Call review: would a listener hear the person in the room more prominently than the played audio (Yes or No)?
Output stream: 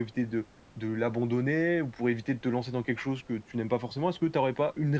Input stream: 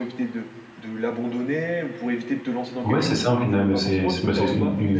Yes